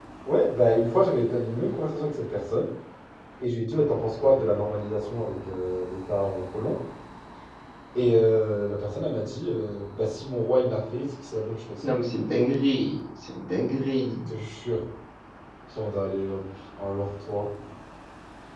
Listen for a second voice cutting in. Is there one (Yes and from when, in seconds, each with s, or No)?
No